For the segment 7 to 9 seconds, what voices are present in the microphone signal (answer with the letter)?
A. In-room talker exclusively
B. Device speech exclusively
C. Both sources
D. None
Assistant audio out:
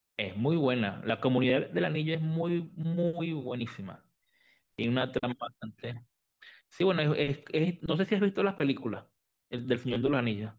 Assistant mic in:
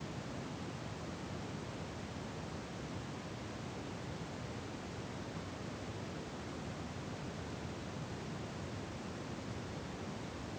D